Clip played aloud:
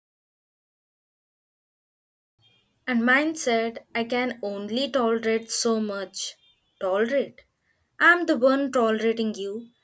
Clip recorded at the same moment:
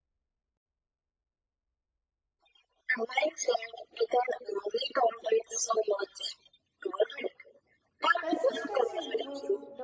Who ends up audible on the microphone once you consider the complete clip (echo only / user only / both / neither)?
both